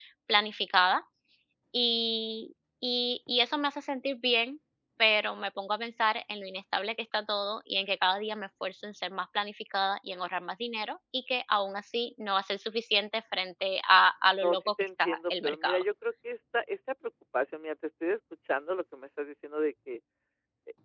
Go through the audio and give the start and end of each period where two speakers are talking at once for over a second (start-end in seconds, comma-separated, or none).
14.4-15.8